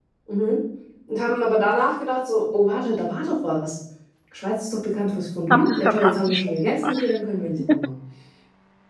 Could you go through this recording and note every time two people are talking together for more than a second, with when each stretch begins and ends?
5.5-7.2

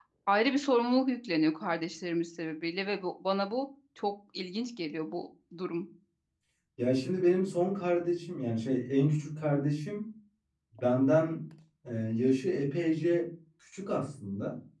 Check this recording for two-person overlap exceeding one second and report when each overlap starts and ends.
none

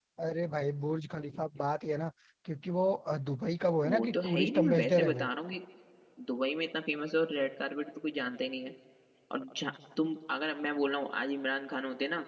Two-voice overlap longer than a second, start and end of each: 3.8-5.3

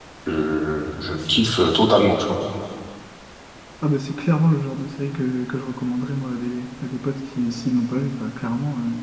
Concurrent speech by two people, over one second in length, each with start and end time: none

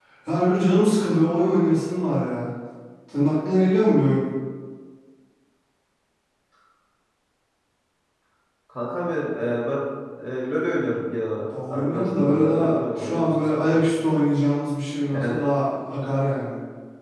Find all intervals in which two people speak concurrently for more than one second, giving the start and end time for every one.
11.7-13.8

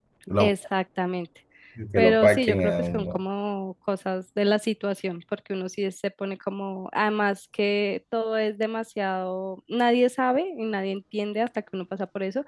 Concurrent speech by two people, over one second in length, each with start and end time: 2.0-3.2

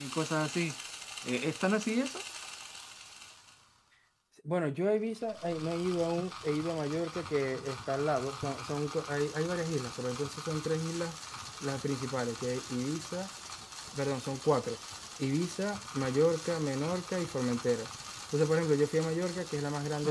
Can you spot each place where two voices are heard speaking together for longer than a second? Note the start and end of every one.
none

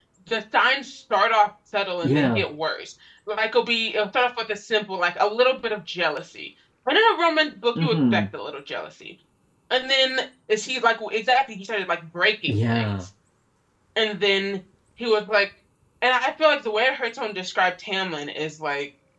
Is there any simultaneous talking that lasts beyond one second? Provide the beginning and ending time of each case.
none

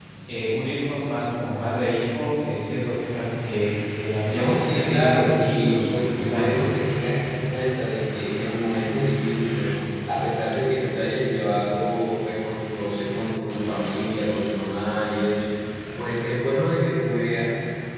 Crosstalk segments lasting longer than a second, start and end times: 4.3-6.7

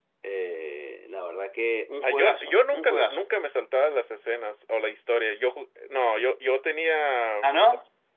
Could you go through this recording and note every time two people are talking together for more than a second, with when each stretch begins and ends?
2.0-3.3

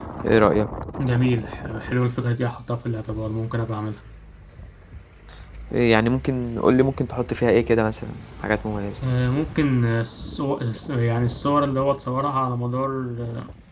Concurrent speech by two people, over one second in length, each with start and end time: none

